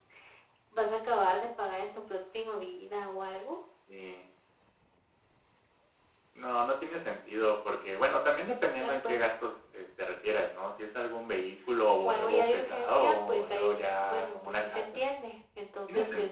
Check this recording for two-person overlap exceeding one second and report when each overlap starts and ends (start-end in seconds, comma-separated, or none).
12.0-14.9